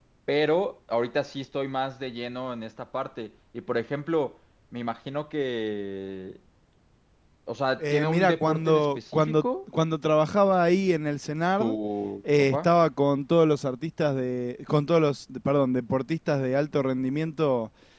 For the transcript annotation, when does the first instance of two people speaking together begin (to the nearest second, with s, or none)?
8 s